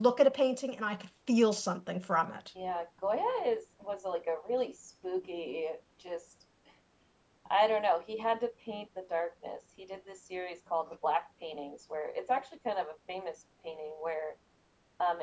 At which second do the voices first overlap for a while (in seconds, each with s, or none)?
none